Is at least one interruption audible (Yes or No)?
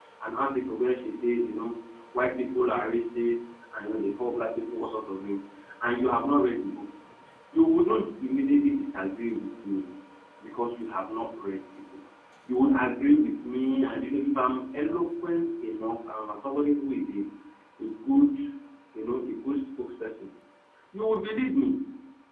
No